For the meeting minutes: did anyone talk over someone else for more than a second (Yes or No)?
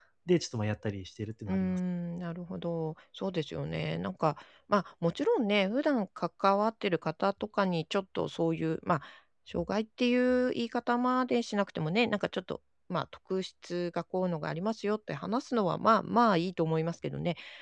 No